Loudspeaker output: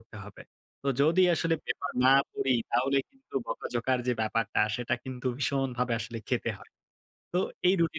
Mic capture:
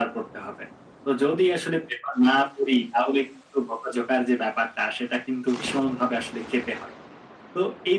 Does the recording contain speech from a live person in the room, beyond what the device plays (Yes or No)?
No